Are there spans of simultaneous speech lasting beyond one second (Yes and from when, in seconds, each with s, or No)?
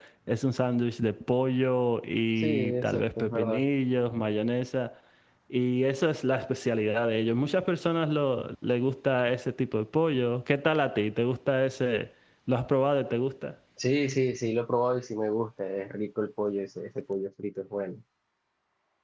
Yes, from 2.4 s